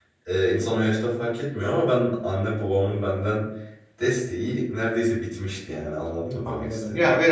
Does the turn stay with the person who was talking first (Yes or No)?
No